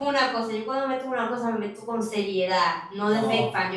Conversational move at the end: taking over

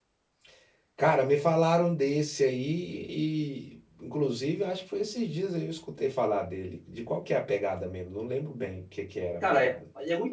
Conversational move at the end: taking over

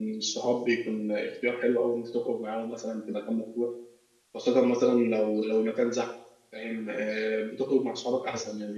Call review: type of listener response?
listening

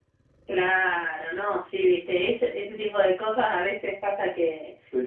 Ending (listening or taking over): listening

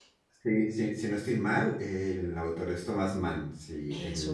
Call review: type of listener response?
listening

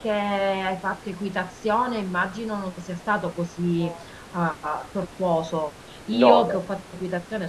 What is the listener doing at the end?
listening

